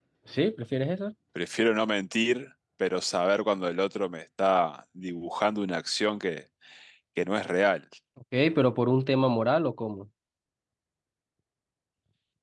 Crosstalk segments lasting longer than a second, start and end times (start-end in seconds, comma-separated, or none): none